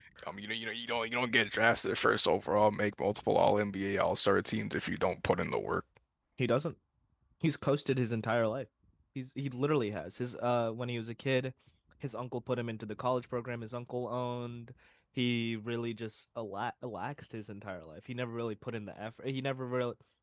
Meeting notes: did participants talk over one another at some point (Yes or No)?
No